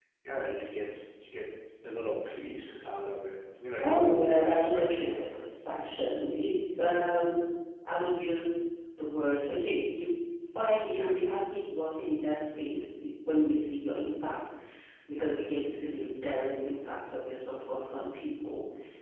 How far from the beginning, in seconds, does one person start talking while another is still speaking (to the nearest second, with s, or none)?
4 s